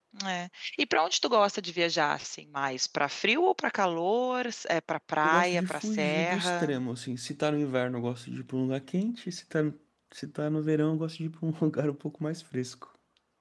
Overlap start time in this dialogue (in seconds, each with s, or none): 5.2 s